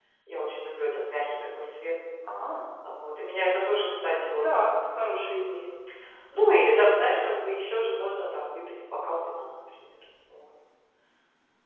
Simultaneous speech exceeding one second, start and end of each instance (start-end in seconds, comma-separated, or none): none